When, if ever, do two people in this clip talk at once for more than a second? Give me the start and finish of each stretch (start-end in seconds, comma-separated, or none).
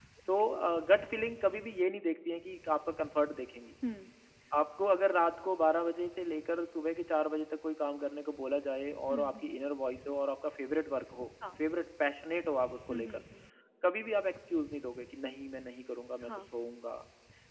none